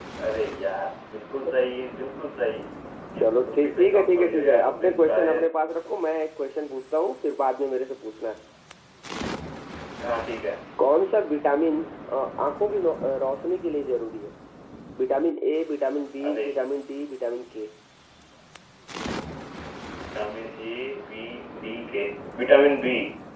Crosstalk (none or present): present